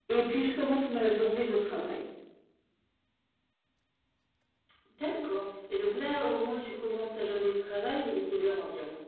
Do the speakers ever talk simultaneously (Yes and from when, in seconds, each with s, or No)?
No